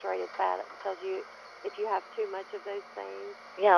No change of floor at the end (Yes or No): No